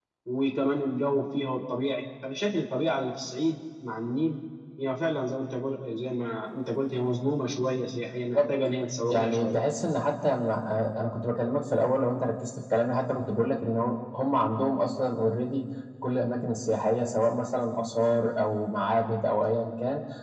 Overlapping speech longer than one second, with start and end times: none

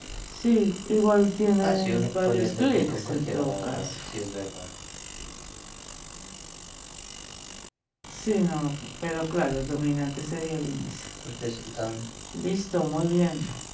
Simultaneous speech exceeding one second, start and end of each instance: 1.6-3.9

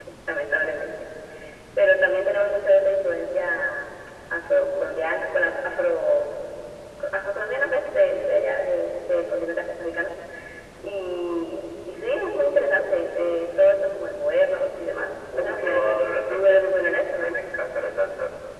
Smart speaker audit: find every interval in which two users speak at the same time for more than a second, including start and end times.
15.4-16.6

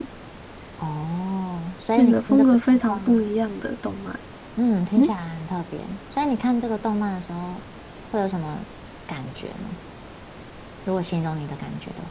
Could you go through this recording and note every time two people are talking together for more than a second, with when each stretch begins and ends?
2.0-3.2

